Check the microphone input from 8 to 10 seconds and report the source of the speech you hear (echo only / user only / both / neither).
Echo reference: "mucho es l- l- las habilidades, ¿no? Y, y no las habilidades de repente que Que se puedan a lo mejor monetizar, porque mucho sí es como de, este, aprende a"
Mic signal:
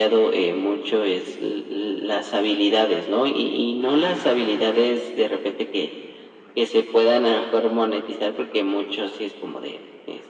echo only